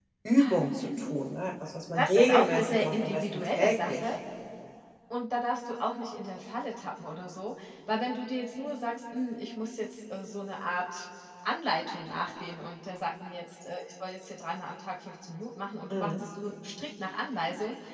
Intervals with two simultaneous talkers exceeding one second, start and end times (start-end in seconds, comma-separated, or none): 1.9-4.0